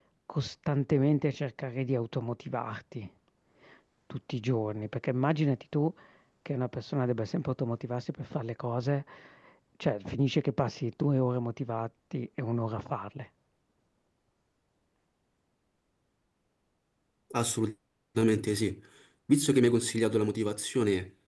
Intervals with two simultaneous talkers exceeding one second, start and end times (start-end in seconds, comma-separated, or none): none